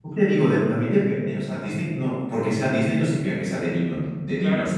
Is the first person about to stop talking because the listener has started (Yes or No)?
Yes